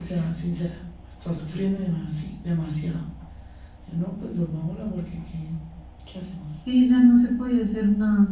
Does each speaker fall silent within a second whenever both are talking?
Yes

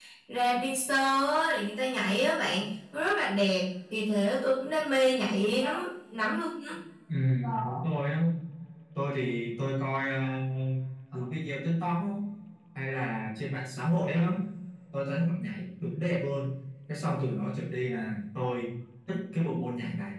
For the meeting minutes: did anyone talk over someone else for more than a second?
No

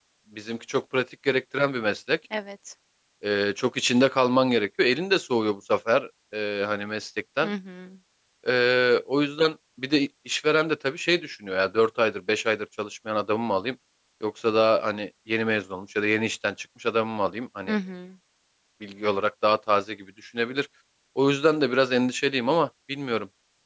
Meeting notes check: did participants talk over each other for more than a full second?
No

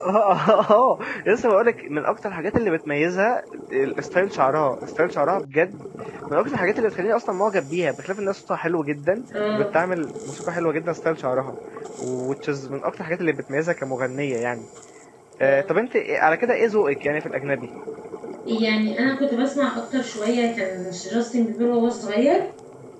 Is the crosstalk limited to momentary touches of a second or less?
Yes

